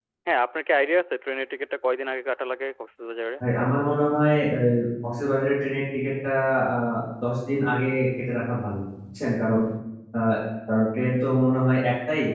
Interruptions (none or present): none